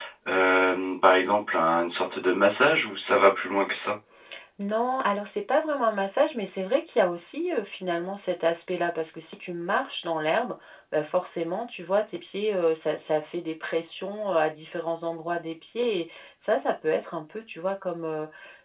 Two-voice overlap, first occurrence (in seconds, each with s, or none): none